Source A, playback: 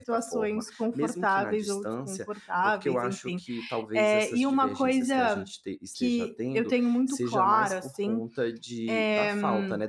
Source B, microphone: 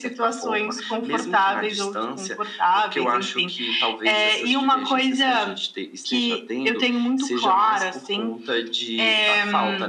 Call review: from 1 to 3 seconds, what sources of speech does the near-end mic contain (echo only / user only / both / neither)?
echo only